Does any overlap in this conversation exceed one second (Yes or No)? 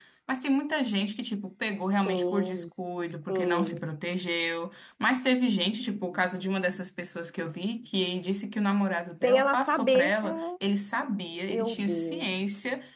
Yes